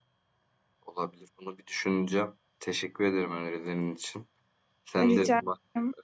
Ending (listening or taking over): listening